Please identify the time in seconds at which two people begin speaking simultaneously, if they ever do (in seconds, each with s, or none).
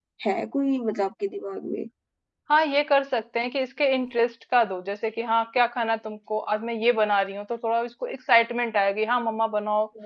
none